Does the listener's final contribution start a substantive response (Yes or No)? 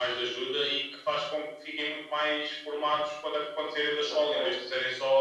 No